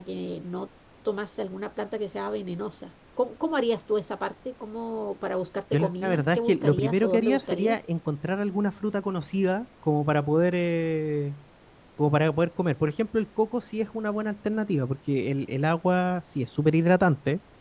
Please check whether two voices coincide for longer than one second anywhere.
Yes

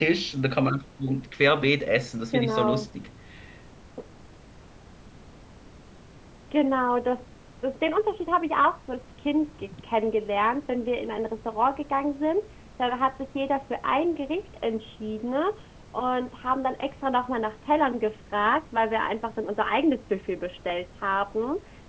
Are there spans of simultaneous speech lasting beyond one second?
No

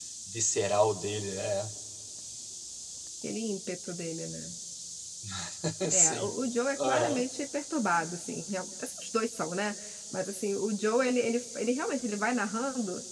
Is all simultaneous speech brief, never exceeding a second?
Yes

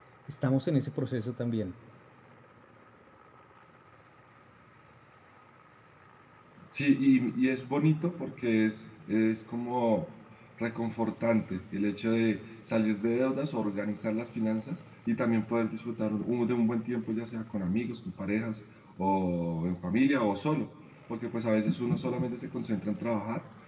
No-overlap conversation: Yes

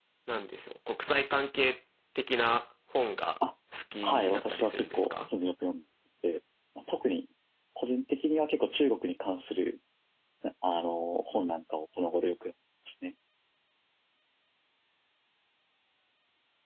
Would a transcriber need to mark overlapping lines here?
Yes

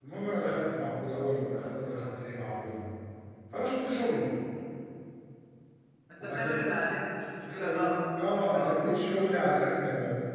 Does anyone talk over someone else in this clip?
Yes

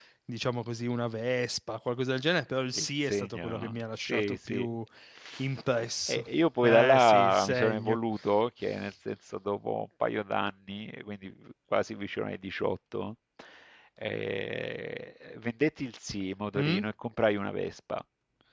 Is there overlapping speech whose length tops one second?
Yes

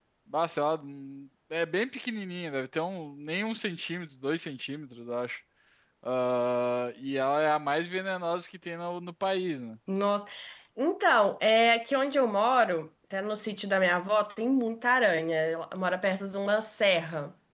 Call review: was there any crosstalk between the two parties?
No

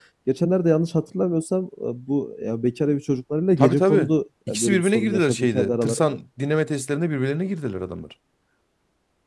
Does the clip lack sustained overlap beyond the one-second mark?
No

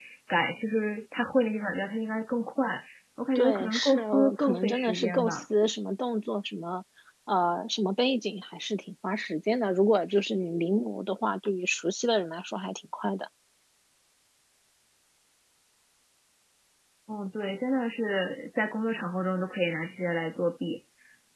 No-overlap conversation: No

